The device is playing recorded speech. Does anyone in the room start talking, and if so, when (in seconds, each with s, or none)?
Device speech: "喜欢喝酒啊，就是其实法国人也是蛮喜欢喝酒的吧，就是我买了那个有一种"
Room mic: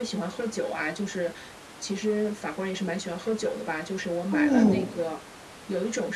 4.3 s